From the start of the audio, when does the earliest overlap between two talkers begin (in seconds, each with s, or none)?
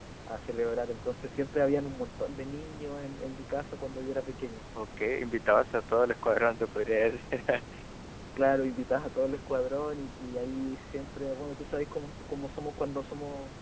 none